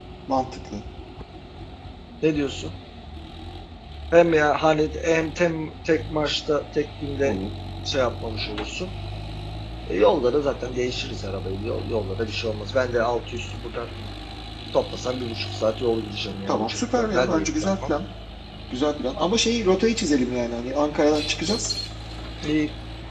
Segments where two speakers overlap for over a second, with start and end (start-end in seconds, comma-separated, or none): 16.5-17.9